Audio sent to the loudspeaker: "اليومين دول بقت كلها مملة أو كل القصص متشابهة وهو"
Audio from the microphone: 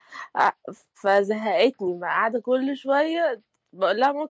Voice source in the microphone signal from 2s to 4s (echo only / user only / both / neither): user only